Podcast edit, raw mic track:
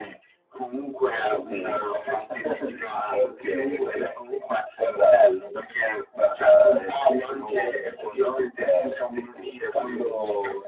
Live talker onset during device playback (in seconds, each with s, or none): none